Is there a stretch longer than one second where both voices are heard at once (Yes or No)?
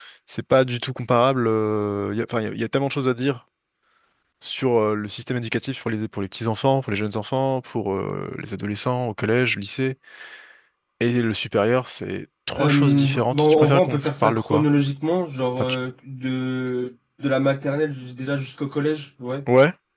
Yes